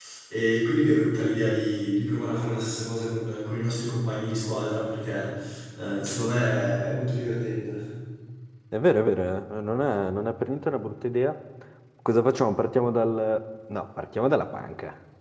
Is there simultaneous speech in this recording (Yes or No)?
No